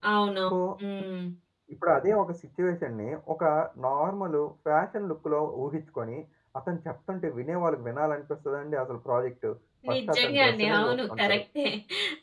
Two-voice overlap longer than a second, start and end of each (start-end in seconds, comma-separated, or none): 9.9-11.4